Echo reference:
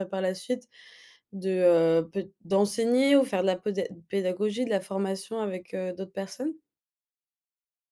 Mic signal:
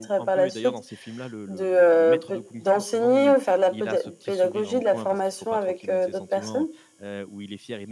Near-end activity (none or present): present